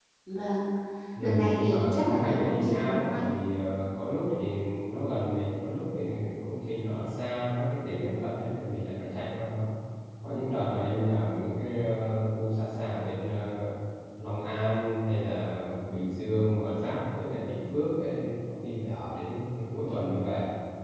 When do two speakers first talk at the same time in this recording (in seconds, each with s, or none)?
1.2 s